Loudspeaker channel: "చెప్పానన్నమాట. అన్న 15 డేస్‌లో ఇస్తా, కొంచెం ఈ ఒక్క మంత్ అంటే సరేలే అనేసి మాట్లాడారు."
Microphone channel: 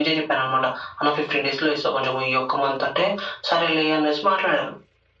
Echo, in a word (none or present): present